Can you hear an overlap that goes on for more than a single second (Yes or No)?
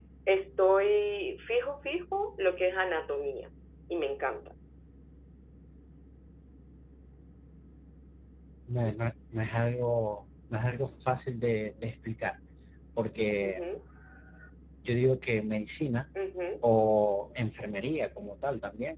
No